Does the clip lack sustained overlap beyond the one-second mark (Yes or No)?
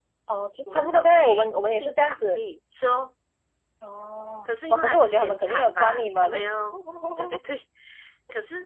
No